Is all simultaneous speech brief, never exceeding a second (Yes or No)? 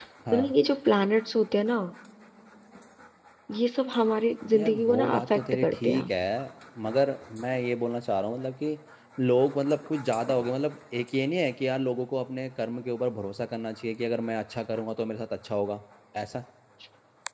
No